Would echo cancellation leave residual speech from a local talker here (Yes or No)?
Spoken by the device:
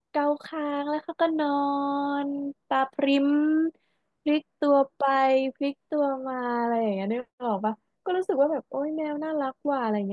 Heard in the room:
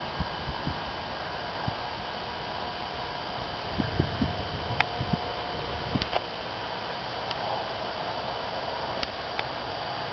No